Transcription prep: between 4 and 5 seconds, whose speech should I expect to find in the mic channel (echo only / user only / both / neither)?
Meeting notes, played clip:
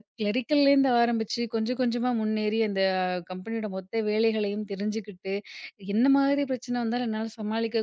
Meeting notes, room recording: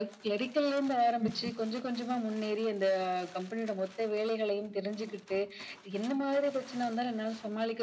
echo only